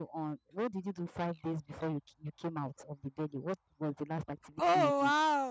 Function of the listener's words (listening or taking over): taking over